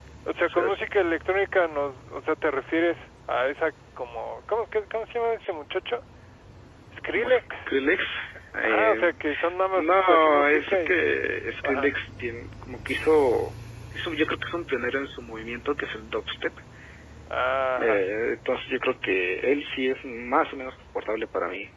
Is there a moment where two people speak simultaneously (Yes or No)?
Yes